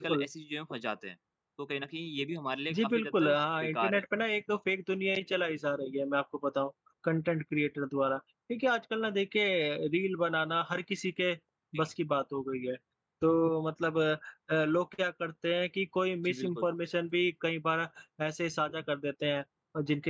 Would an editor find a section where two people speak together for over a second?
Yes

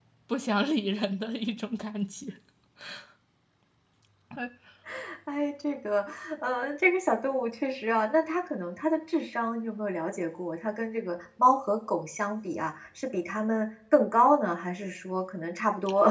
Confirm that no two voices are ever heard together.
Yes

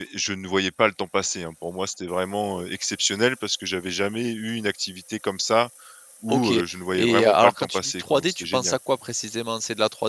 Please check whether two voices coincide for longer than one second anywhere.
Yes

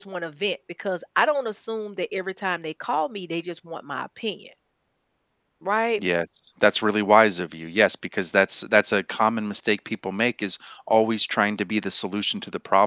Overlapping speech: No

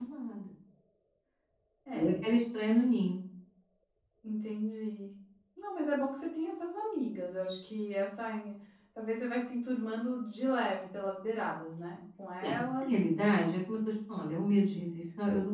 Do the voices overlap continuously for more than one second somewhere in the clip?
No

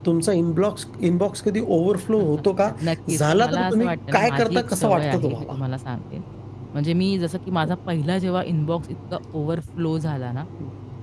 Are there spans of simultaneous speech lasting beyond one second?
Yes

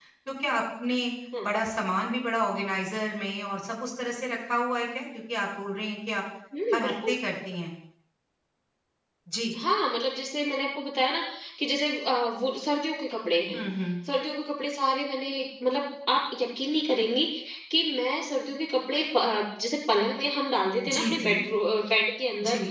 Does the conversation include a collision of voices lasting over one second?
No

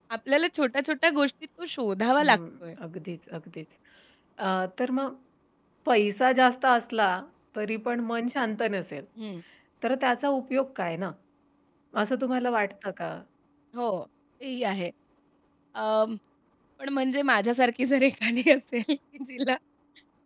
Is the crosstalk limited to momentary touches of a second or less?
Yes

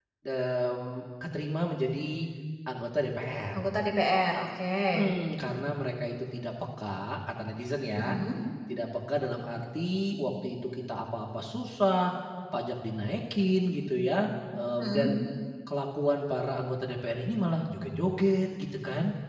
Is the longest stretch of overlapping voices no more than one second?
Yes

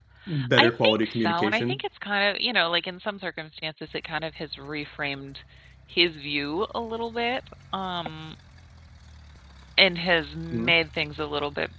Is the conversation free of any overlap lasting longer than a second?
No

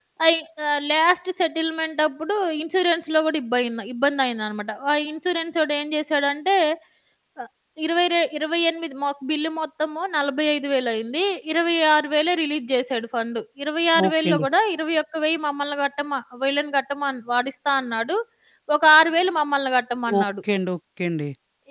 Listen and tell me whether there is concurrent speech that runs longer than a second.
No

